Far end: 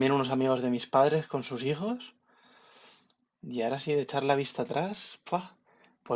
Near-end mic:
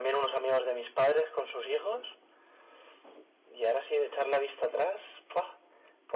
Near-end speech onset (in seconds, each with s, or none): none